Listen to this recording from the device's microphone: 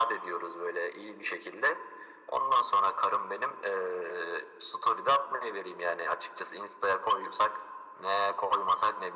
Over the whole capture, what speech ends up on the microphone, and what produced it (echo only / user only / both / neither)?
echo only